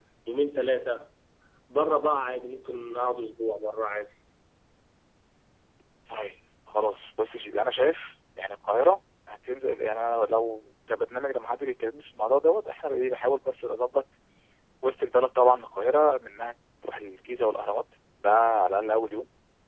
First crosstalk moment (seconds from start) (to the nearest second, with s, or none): none